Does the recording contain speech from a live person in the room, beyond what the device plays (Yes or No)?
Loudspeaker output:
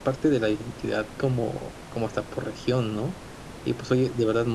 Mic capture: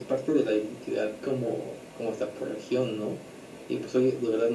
No